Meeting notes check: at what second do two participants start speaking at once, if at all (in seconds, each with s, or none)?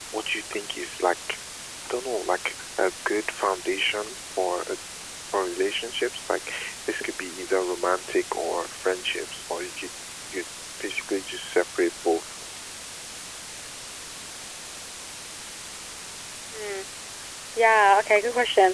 none